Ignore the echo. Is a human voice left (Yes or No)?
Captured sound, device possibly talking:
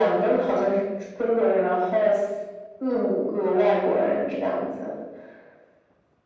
No